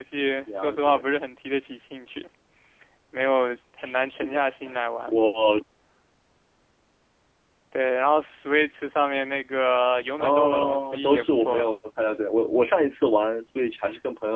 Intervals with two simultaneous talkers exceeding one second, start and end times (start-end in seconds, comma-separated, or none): 10.2-11.7